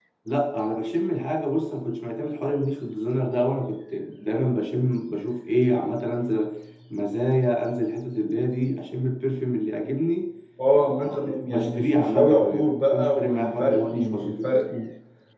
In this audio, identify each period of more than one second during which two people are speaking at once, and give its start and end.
11.1-14.5

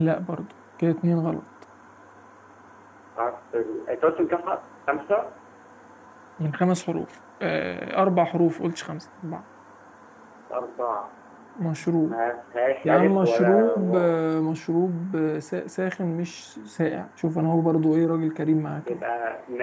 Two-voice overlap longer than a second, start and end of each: 12.8-14.1

